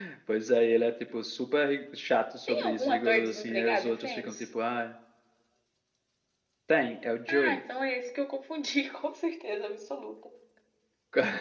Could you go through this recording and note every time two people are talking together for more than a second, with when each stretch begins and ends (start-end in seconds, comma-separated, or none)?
2.5-4.5